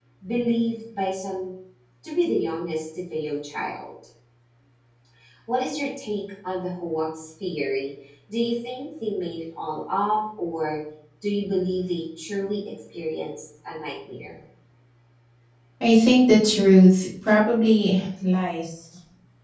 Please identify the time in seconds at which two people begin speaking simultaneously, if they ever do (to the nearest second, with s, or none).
none